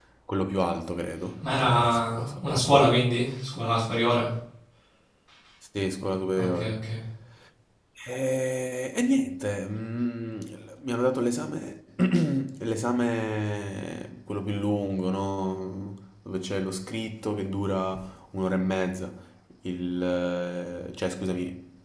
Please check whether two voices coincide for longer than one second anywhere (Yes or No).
Yes